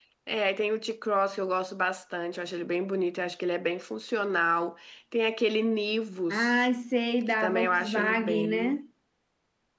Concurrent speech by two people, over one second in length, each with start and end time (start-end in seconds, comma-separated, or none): 7.2-8.8